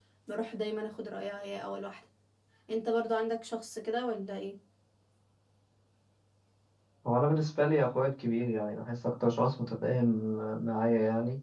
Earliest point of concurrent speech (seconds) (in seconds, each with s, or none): none